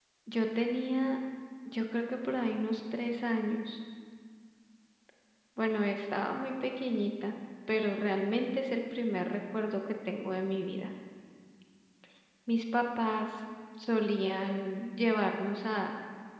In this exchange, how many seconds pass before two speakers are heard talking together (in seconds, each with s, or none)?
none